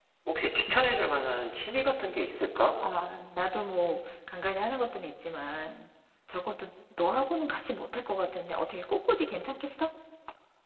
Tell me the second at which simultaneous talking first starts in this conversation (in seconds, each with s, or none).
none